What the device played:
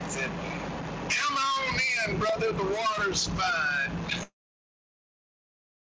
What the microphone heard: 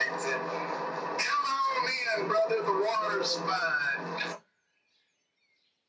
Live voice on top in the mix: No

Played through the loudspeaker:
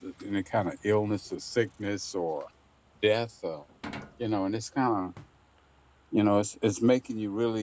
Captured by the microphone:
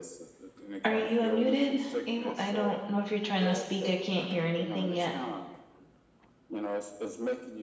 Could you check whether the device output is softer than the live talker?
Yes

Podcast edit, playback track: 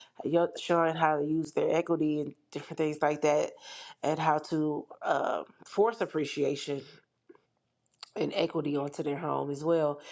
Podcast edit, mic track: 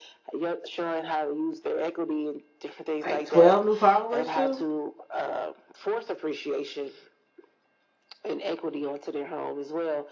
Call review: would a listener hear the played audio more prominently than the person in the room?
No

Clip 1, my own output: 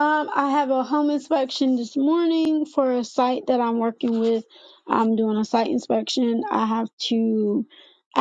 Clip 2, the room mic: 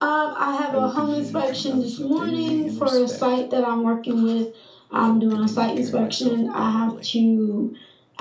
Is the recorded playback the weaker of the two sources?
No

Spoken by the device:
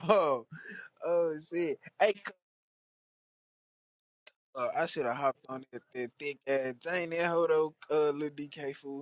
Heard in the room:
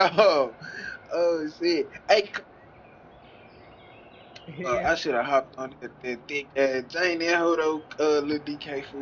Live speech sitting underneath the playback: Yes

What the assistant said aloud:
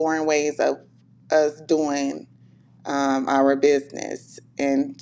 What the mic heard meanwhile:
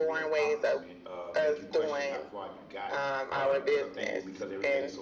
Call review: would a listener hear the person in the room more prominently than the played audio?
No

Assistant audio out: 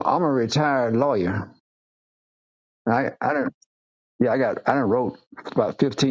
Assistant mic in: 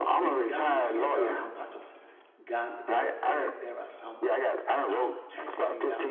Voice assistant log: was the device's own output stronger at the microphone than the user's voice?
Yes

